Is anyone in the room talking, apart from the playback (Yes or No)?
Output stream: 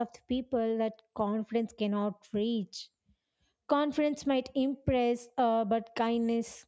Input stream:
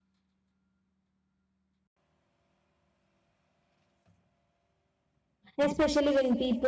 Yes